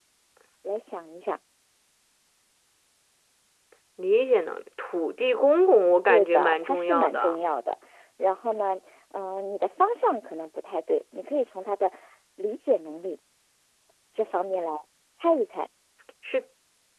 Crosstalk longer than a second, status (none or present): present